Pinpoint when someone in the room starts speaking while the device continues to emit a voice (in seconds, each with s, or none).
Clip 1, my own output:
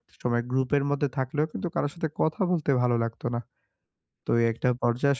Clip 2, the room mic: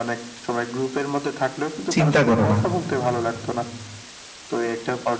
1.9 s